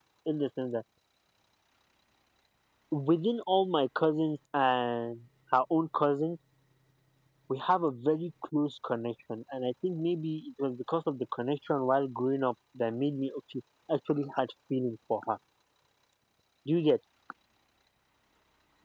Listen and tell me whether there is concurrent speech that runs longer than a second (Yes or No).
No